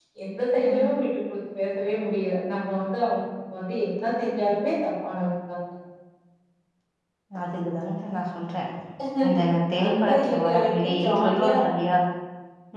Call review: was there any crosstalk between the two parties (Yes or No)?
Yes